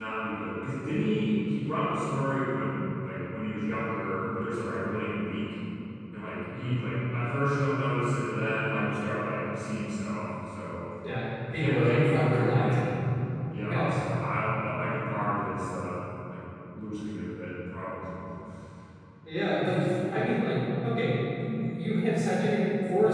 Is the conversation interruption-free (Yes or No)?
No